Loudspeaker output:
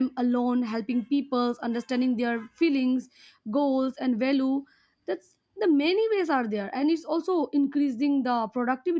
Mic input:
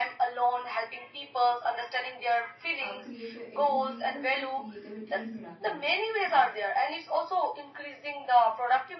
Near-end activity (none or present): present